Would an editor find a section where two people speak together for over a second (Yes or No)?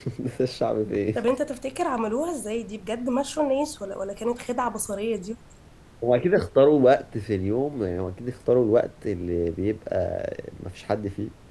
No